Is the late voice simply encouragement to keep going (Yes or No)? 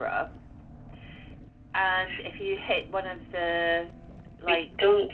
No